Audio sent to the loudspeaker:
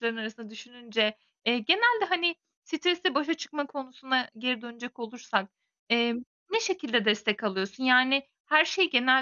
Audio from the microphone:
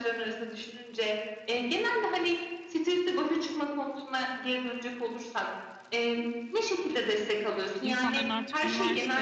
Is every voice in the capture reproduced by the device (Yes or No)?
No